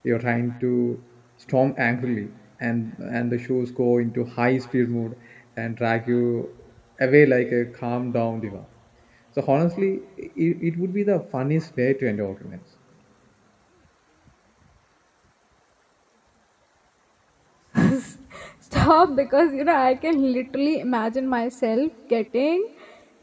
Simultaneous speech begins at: none

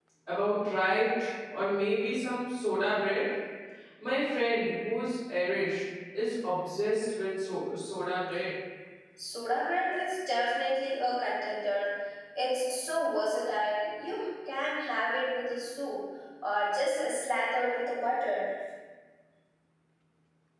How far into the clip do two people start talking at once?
none

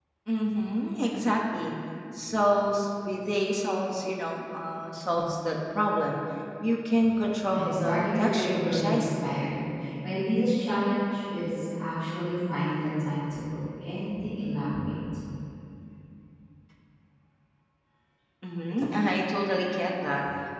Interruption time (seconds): 7.5 s

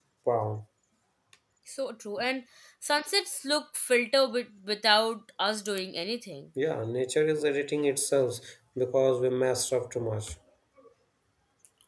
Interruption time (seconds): none

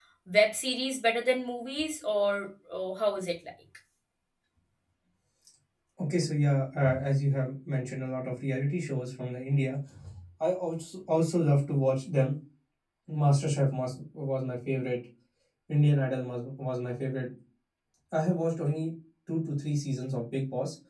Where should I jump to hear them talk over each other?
none

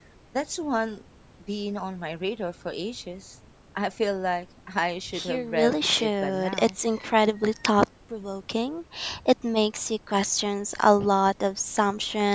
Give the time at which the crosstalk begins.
5.1 s

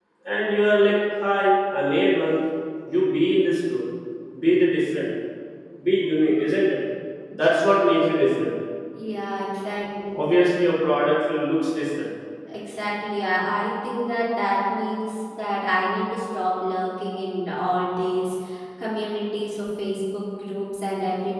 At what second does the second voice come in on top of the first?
none

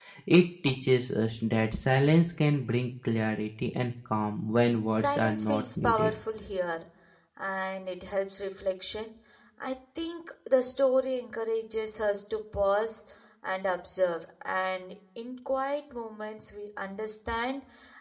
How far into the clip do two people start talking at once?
4.9 s

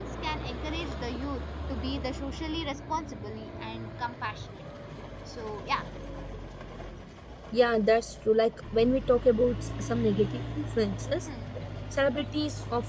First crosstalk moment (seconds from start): none

